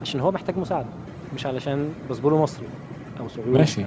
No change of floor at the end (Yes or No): No